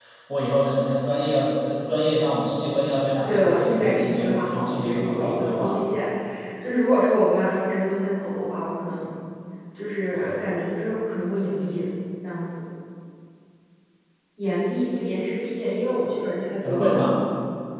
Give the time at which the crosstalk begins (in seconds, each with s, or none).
3.3 s